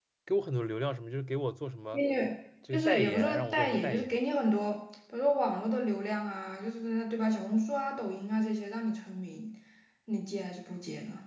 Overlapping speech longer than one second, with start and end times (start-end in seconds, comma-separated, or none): 2.7-4.0